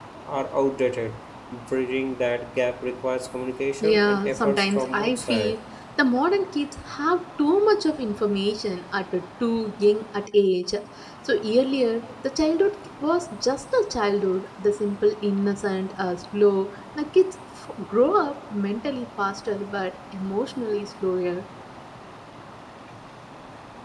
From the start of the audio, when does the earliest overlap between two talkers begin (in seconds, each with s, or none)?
3.8 s